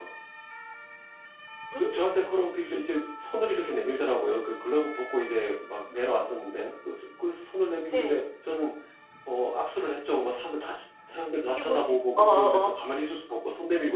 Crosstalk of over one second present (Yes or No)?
Yes